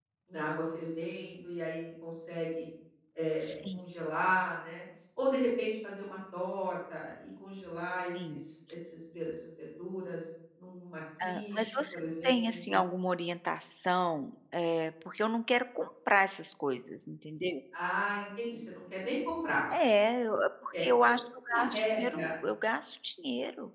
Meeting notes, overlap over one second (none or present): present